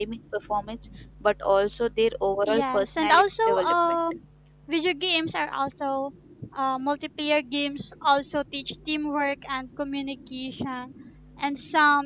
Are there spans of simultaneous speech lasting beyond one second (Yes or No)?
Yes